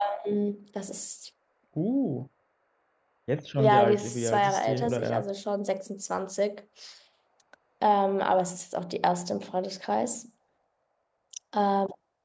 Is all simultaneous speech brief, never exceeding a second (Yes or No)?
No